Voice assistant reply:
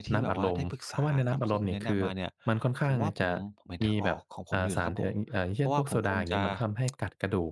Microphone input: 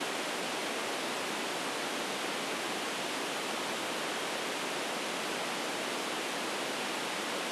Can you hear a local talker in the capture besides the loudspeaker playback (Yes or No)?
No